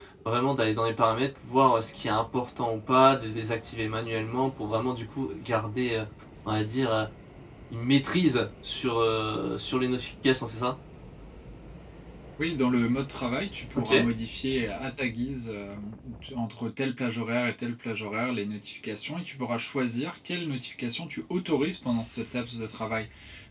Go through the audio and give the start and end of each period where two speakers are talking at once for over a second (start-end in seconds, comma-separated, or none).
none